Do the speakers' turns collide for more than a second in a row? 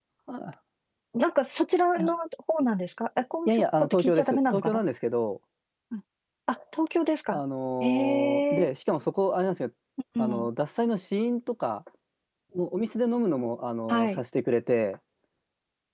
Yes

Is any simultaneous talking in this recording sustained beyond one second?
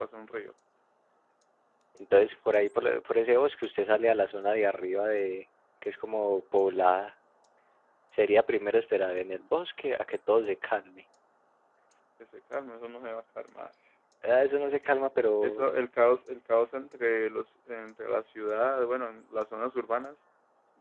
No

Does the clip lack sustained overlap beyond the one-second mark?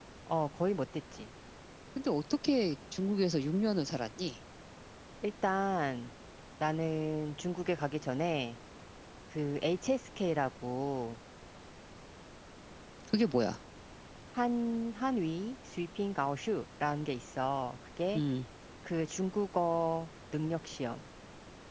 Yes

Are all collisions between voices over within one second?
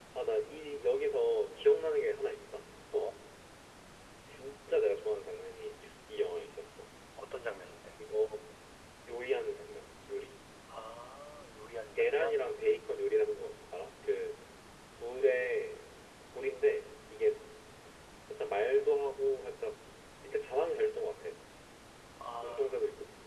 Yes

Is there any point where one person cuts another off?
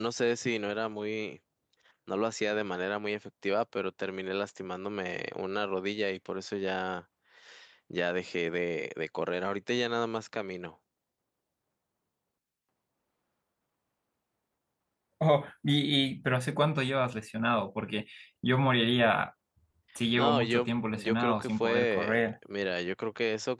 Yes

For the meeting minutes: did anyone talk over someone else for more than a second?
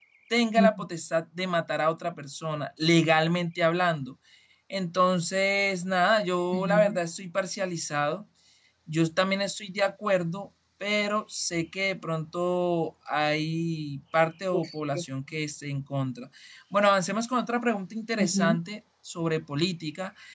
No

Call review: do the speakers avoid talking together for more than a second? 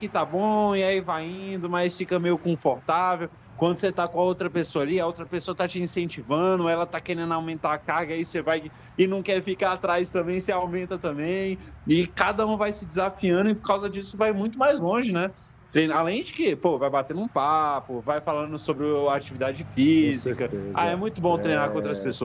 No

